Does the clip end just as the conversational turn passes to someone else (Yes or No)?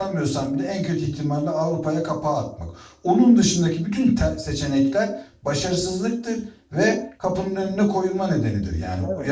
No